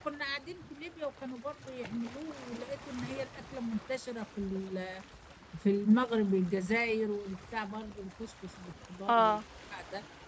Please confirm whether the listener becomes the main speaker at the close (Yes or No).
No